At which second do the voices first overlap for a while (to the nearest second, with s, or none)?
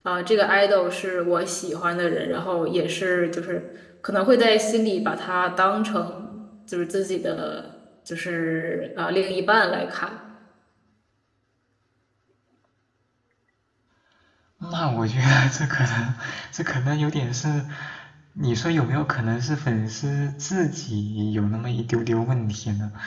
none